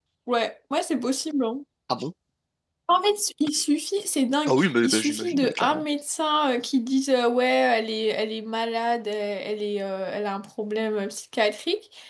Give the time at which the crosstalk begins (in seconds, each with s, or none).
4.5 s